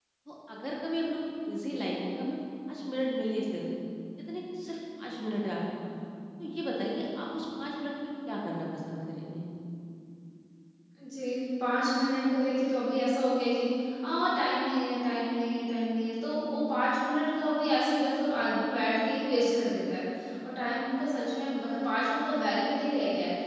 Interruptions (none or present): none